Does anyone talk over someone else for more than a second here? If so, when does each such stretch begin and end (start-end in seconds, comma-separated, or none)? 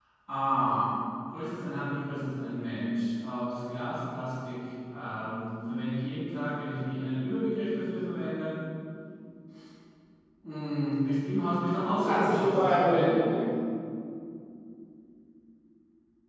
11.9-13.2